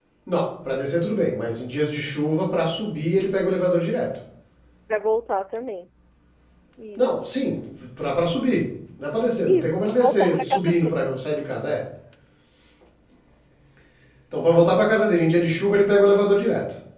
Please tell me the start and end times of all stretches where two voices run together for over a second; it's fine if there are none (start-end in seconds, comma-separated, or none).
9.5-11.1